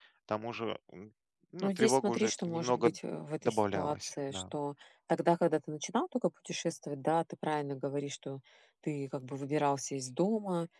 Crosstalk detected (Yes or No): Yes